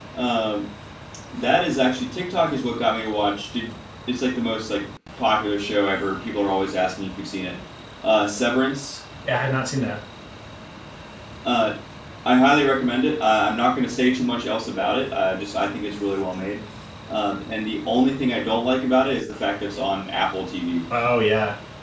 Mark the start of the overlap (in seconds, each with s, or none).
none